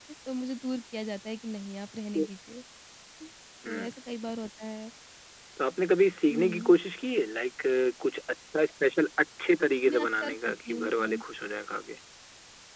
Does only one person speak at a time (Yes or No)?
No